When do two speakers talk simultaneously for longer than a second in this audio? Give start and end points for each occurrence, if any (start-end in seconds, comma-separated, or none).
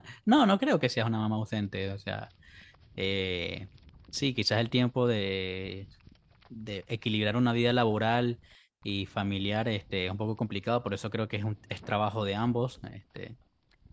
none